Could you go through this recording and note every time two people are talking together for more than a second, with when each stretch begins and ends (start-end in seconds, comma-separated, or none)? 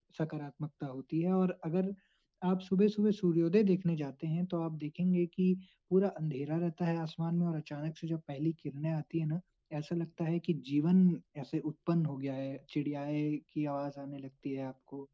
none